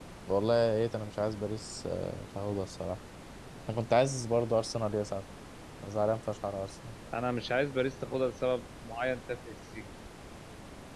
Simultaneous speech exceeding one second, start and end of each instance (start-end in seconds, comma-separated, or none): none